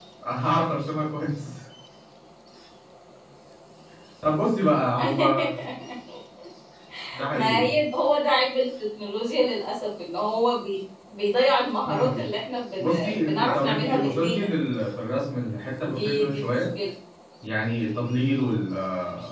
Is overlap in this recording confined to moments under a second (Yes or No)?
No